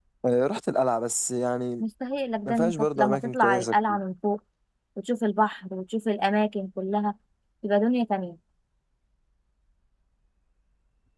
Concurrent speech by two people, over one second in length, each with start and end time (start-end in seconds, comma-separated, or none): 2.5-4.0